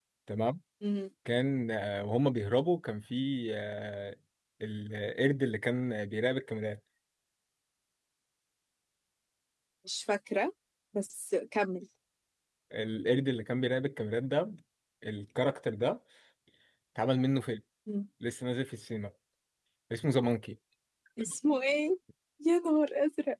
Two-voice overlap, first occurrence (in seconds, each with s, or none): none